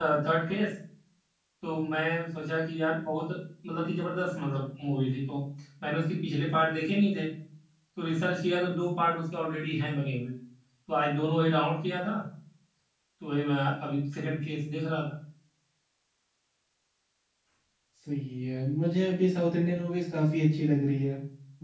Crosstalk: none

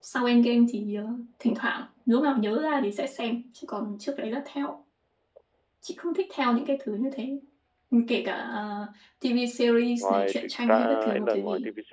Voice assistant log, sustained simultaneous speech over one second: present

